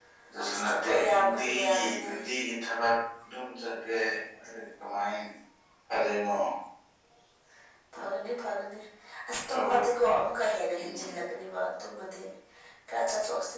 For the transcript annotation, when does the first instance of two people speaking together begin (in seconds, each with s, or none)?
0.7 s